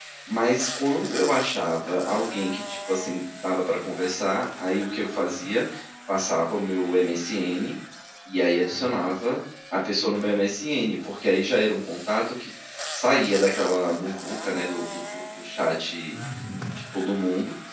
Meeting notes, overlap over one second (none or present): none